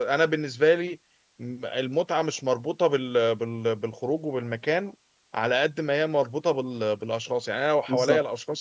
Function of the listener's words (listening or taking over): listening